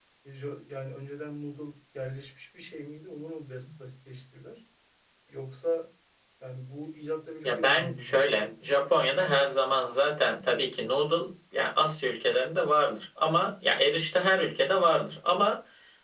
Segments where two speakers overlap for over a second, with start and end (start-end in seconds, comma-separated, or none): 7.4-8.7